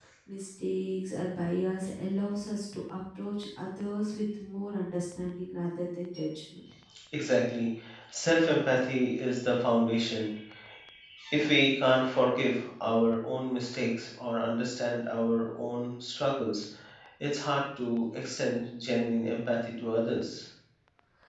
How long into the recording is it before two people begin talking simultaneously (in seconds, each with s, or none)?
none